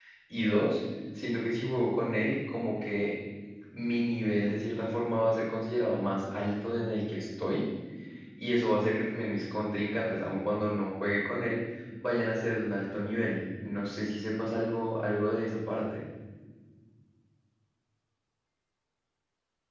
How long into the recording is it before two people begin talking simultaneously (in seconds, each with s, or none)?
none